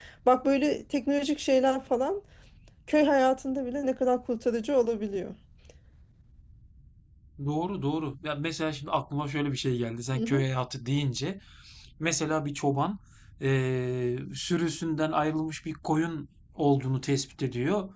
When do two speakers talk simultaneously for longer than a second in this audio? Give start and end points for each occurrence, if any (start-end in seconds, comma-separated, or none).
none